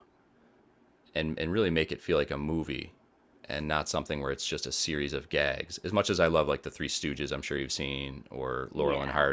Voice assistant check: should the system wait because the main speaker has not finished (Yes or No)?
Yes